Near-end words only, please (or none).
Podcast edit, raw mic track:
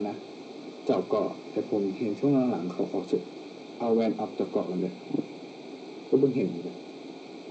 none